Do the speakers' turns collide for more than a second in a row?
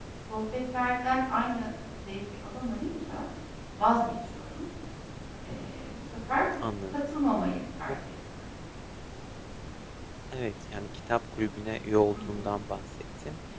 No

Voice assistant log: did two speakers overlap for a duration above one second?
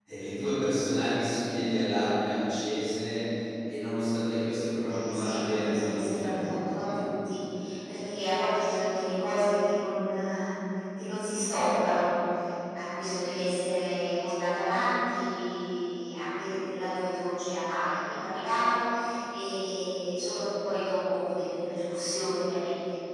Yes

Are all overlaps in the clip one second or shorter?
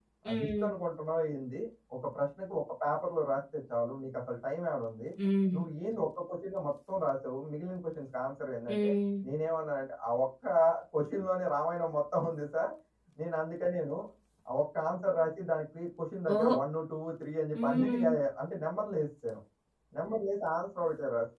Yes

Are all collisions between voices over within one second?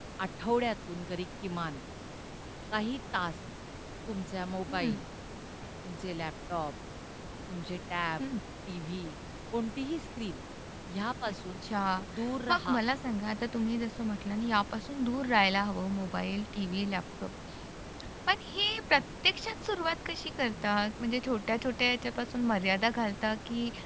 Yes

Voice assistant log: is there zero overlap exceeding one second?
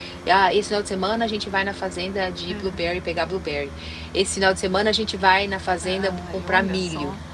No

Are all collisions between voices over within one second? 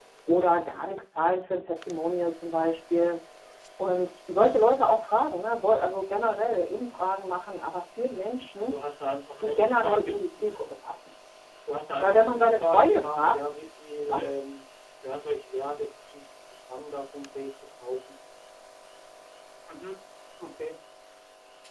No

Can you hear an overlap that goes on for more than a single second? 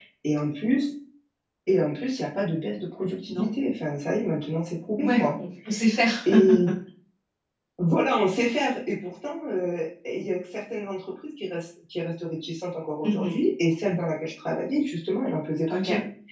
No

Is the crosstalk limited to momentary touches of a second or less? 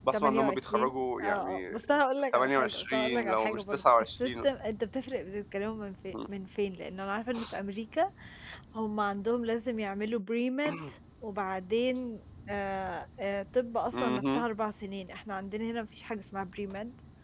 No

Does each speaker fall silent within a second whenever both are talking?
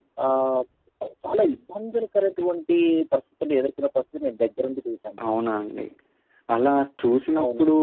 Yes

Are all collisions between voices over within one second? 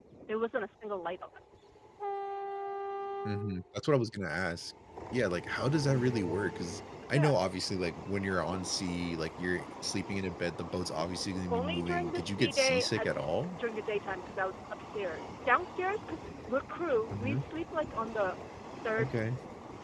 No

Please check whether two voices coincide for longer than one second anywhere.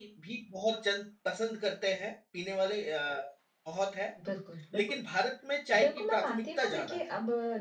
Yes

